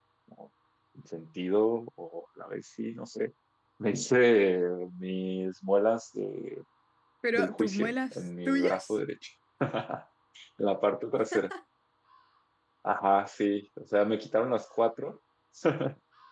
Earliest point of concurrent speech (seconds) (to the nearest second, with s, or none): 7 s